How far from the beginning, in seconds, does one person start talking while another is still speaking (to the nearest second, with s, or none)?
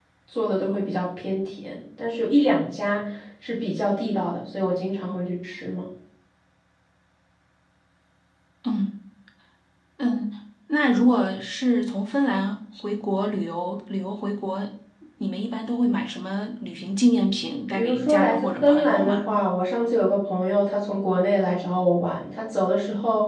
18 s